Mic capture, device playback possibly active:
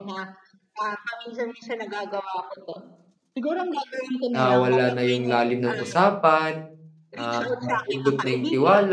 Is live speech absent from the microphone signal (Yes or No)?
No